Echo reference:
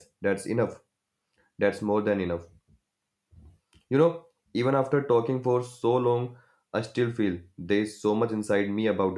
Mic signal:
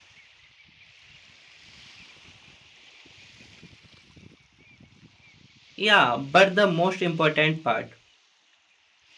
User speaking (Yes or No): Yes